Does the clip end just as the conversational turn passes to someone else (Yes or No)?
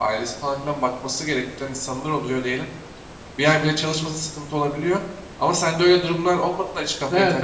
Yes